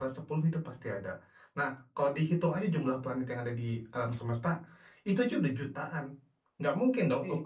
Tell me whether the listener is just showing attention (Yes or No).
Yes